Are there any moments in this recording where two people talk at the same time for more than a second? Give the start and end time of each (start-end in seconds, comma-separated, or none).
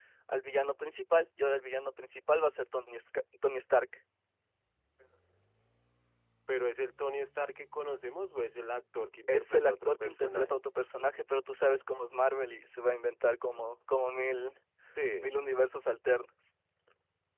9.3-10.6